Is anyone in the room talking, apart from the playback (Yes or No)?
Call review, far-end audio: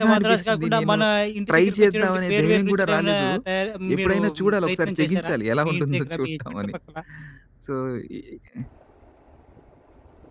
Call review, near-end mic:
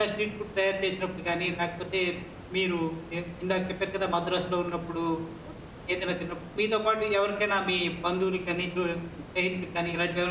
Yes